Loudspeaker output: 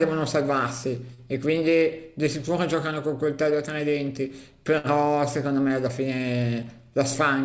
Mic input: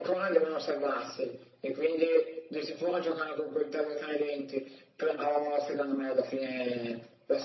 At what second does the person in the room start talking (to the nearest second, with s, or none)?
none